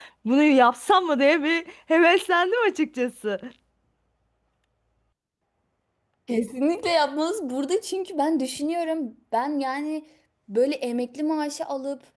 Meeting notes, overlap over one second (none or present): none